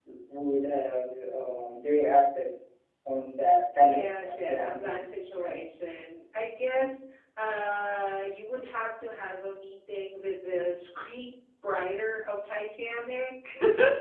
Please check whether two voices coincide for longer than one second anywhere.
Yes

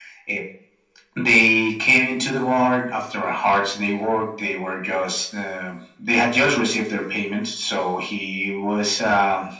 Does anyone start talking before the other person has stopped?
No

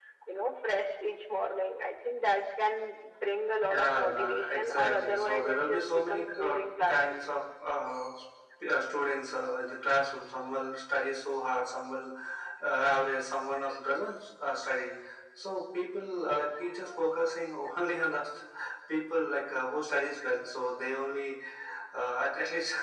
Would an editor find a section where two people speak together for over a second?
Yes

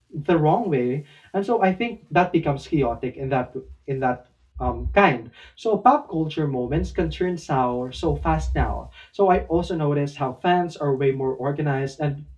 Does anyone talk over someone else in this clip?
No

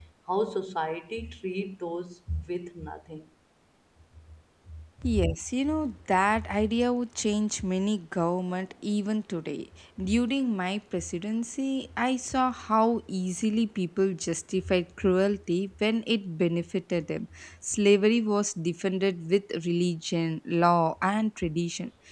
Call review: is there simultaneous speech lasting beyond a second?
No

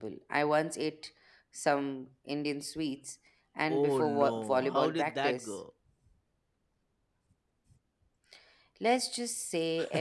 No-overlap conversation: No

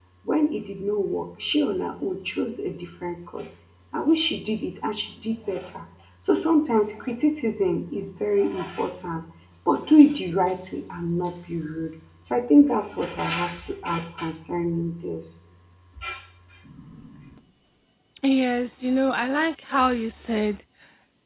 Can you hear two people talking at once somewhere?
No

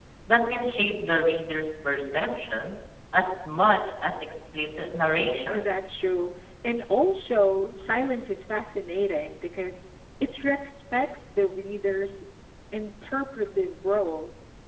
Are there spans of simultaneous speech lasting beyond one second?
No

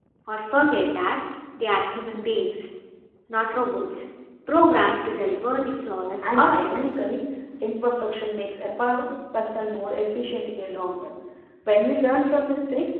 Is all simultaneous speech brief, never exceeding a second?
Yes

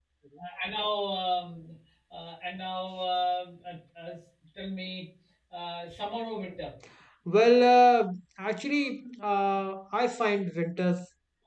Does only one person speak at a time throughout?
Yes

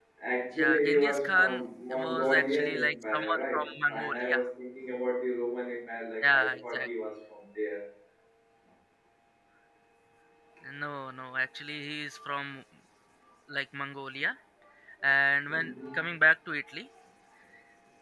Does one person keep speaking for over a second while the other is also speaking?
Yes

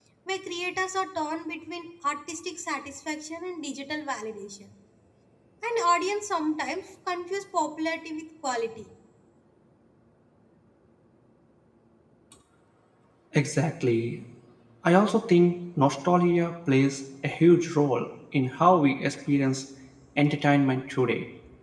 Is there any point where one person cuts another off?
No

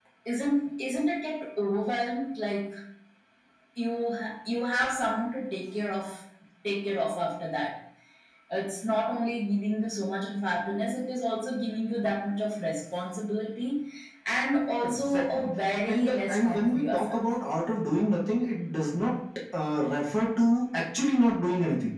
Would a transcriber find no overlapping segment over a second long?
No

